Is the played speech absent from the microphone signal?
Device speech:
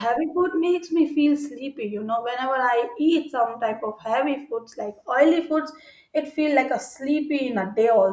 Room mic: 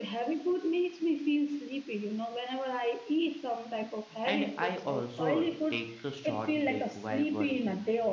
No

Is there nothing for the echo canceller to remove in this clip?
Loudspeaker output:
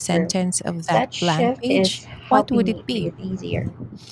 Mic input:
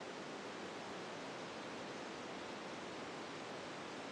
Yes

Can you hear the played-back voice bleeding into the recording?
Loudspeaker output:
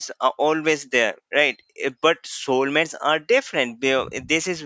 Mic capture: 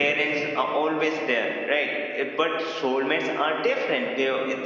Yes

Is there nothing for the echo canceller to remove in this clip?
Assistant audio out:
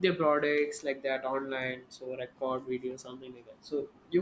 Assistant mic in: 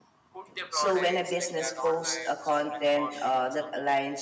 No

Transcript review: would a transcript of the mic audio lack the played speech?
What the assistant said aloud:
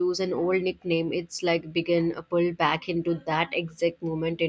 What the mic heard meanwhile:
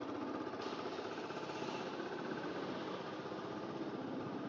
Yes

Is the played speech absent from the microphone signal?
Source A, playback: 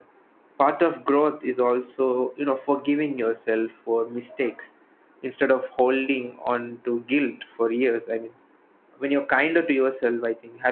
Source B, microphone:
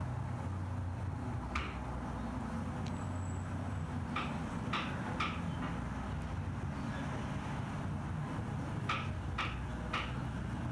Yes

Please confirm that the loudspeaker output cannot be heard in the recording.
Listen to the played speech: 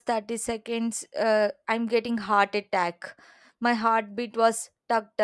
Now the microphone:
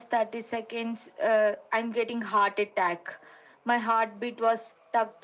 No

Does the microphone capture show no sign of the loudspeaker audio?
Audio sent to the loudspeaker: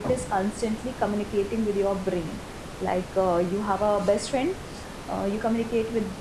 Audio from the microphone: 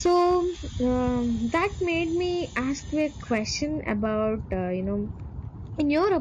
Yes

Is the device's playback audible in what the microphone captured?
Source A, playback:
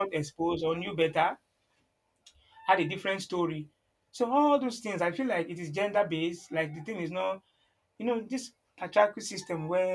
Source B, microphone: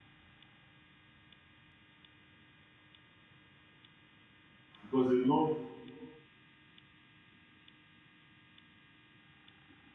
No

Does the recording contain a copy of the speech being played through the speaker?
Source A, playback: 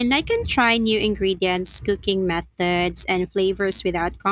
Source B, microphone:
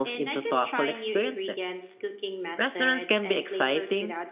Yes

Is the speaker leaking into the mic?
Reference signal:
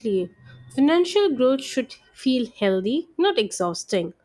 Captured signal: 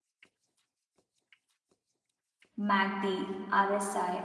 No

